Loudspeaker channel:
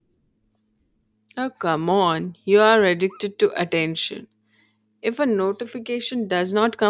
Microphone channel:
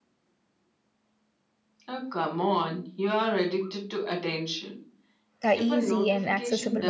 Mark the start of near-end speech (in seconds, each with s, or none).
5.4 s